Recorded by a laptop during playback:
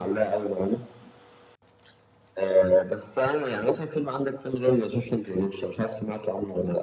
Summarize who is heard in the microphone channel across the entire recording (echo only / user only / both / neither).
echo only